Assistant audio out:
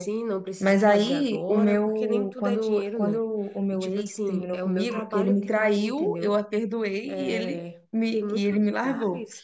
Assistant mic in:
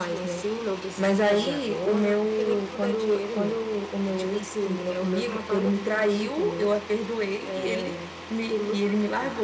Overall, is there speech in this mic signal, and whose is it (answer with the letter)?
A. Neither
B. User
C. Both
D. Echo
D